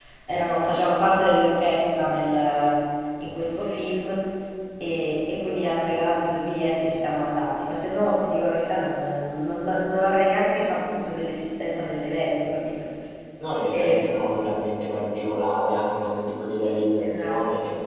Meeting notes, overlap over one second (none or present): none